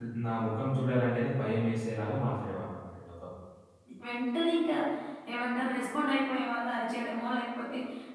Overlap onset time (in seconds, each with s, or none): none